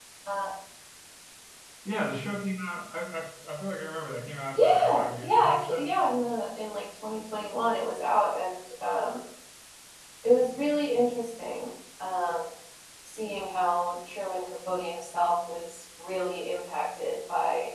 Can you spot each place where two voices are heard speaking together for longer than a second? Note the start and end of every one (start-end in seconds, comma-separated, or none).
4.5-5.9